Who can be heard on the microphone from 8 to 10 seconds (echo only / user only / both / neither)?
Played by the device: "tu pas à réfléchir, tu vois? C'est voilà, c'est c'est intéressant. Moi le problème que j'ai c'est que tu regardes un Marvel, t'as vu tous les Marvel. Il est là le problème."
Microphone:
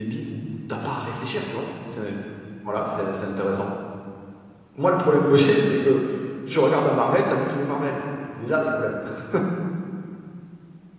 echo only